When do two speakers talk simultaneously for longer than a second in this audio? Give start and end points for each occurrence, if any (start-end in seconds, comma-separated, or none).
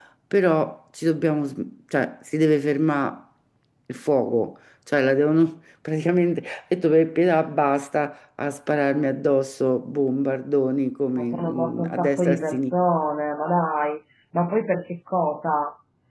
11.2-12.7